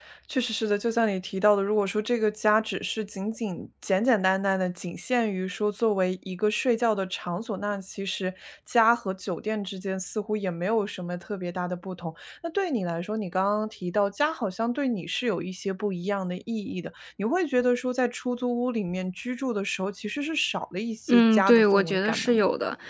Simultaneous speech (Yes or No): Yes